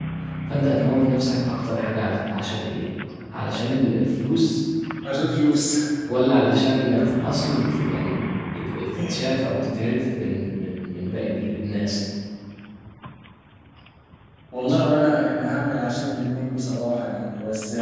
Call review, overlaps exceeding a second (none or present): none